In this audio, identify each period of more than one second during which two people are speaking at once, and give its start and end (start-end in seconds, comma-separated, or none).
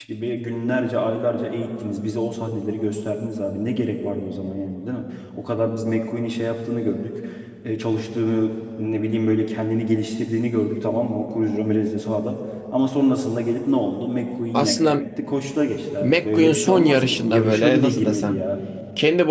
16.0-18.3